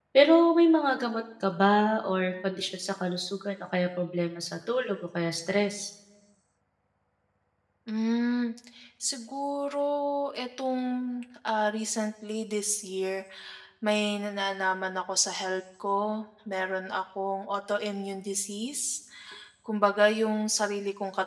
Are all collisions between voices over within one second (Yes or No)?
Yes